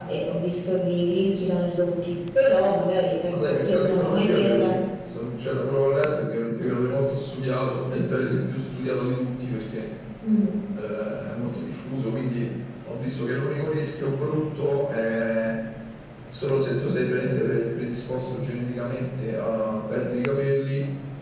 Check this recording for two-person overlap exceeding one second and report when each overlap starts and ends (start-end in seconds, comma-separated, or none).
3.3-4.7